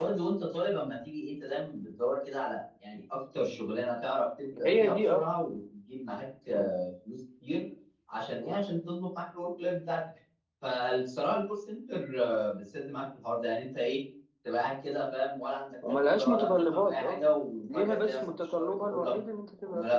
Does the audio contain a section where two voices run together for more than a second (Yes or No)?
Yes